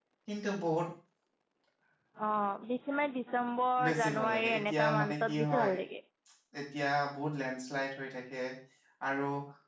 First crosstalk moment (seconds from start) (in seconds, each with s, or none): 3.8 s